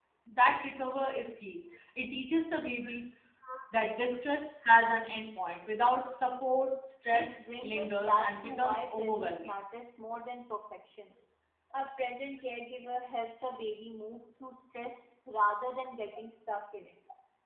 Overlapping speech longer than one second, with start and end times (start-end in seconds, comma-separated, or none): 7.1-9.5